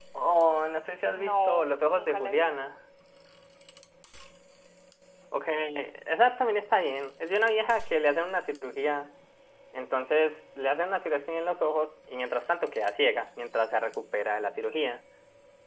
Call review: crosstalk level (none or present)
present